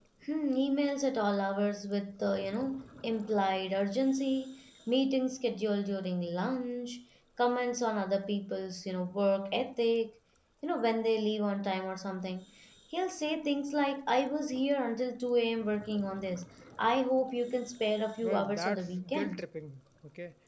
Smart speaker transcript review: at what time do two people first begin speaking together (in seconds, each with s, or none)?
18.2 s